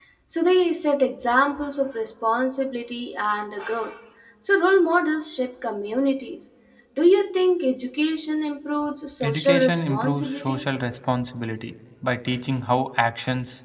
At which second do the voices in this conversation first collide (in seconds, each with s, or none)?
9.2 s